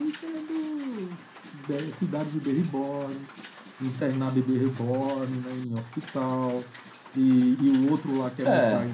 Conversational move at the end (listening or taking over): listening